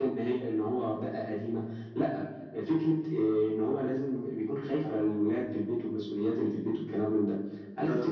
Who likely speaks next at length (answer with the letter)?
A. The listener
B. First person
B